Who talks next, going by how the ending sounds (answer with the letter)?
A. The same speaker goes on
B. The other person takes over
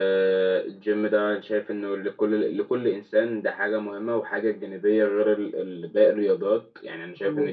B